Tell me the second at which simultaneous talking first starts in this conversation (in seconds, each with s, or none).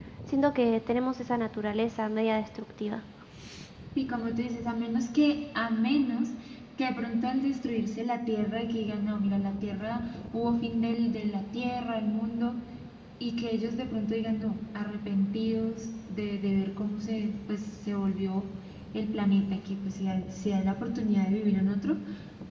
none